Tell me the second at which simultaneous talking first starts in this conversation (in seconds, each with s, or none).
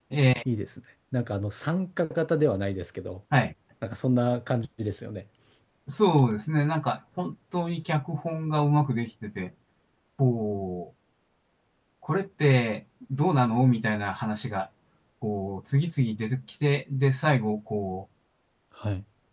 none